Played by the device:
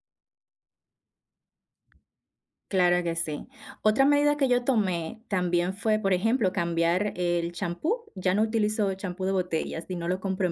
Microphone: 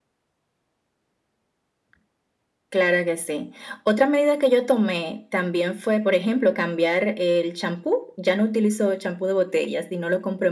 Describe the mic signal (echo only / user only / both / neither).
echo only